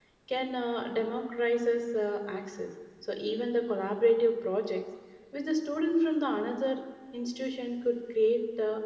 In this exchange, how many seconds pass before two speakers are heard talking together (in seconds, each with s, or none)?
none